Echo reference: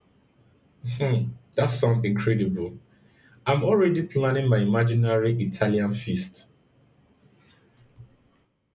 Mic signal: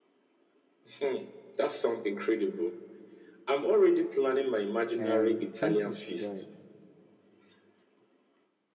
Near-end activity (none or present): present